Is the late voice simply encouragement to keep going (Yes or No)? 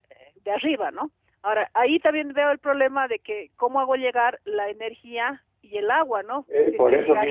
No